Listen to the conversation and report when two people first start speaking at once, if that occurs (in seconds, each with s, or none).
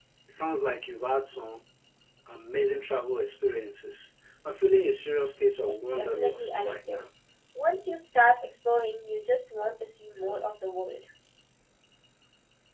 5.6 s